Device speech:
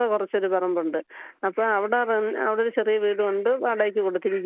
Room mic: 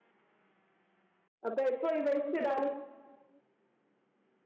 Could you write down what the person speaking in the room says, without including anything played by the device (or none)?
അപ്പൊ ഇപ്പൊ ഈ വേസ്റ്റ് ഇടാനും